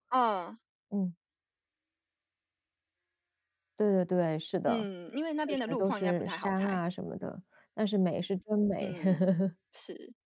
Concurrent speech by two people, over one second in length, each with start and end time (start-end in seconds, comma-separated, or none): 5.5-6.8